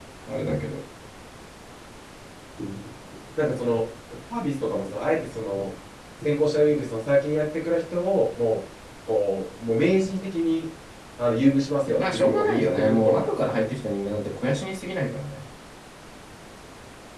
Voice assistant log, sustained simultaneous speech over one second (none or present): present